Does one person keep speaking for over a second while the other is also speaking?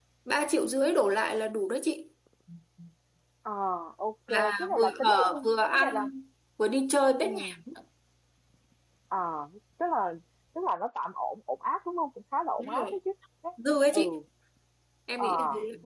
Yes, from 4.3 s

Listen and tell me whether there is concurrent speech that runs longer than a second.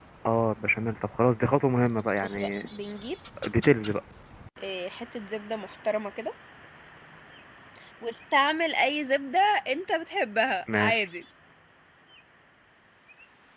No

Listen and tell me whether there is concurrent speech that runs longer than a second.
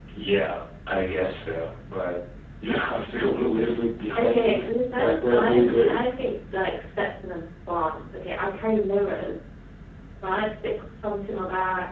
Yes, from 4.2 s

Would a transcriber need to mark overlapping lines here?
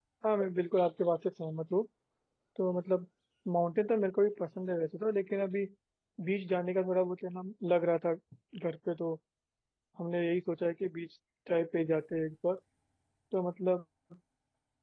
No

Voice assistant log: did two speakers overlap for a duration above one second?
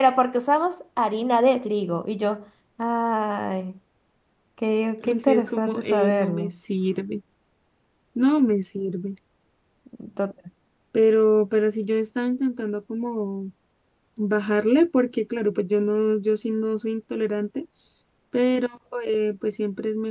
Yes, from 5.1 s

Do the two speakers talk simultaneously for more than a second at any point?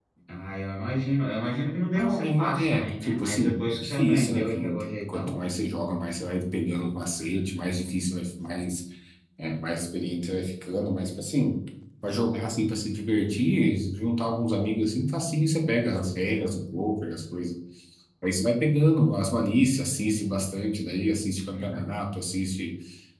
Yes, from 1.9 s

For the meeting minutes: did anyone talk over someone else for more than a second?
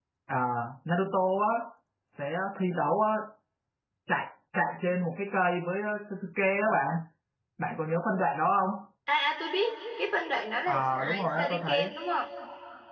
Yes, from 10.7 s

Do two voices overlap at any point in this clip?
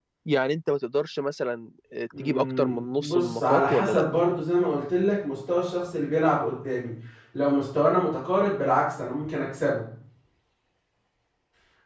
Yes, from 2.1 s

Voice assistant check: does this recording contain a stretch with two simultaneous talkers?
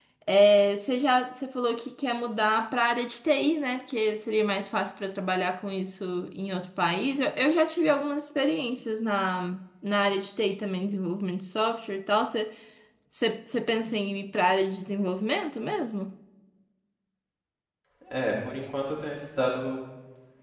No

